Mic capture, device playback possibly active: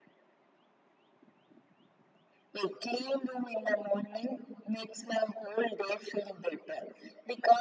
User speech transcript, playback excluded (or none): none